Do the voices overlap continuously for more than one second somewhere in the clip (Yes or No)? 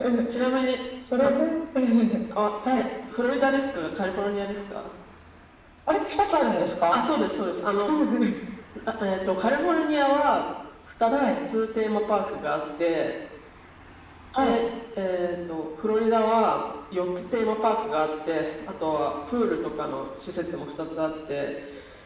No